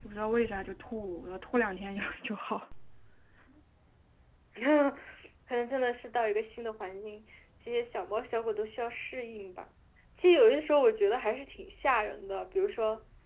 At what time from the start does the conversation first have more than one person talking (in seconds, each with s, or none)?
none